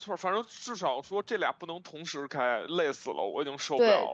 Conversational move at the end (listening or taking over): taking over